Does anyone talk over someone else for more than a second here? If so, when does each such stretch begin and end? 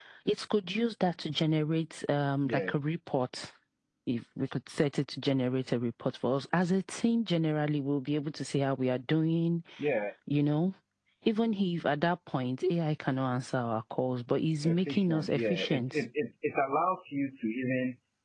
14.6-16.0

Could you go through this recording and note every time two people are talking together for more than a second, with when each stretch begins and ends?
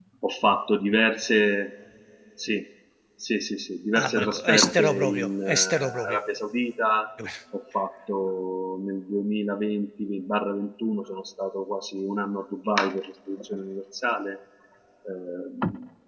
4.0-6.2

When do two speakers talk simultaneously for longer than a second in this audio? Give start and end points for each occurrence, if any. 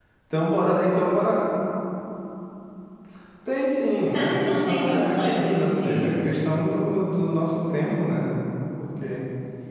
4.1-6.1

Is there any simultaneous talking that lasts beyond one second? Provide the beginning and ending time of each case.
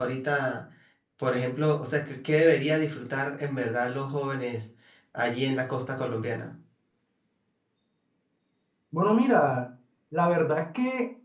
none

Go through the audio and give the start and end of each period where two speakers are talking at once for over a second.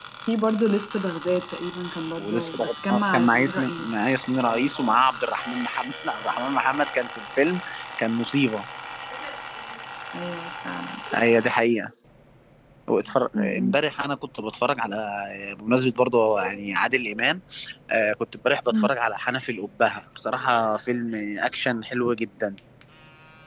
2.2-3.9

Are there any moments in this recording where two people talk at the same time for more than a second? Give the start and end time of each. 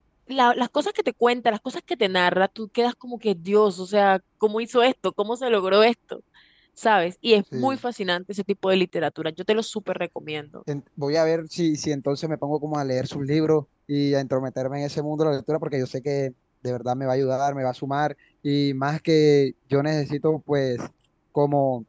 none

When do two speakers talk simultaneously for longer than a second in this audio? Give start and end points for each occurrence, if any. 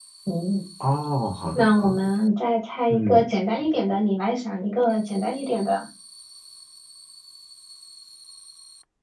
none

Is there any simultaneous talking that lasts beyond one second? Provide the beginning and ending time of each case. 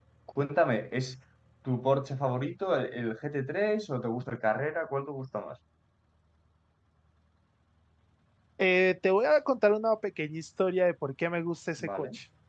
none

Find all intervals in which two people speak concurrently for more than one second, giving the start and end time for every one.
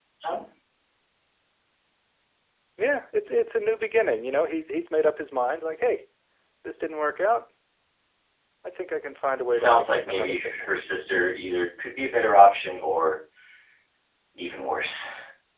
9.3-11.0

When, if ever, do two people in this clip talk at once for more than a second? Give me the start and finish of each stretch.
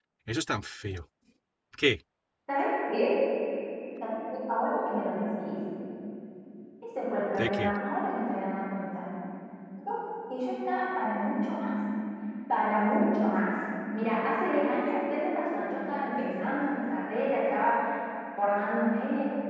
none

